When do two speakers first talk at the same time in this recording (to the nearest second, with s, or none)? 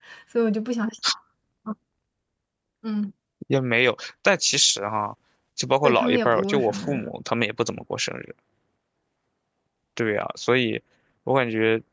6 s